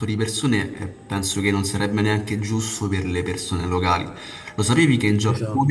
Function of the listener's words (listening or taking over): listening